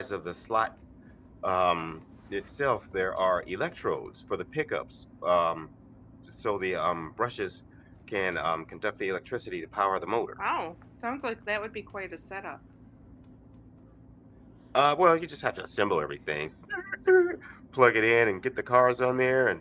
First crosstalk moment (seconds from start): none

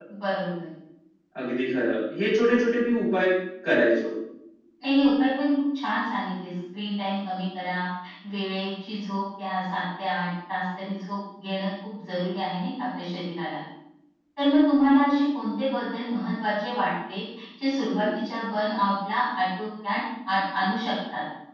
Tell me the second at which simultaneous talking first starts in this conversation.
none

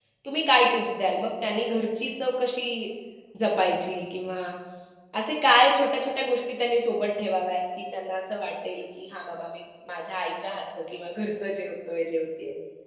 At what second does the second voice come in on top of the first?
none

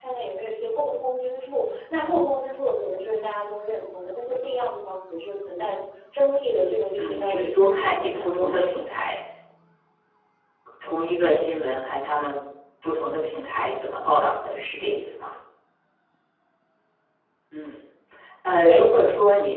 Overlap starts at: 7 s

